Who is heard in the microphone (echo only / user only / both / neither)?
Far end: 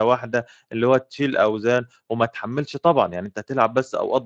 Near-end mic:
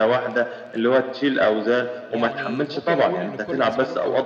both